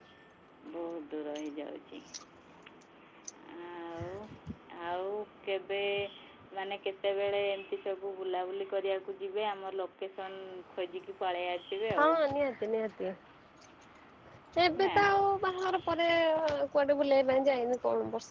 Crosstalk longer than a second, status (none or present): none